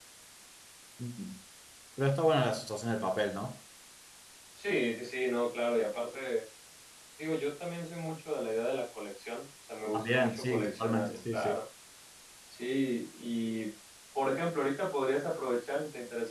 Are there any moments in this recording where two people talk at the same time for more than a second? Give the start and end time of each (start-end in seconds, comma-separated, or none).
9.9-11.5